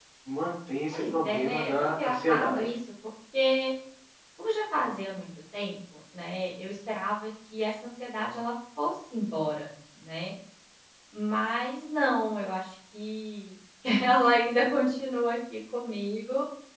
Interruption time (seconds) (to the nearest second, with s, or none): 1 s